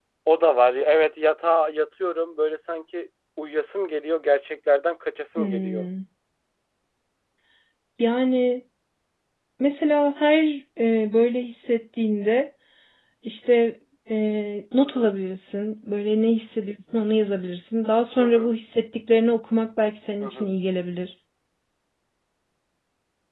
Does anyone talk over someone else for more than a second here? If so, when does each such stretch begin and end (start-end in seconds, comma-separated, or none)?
none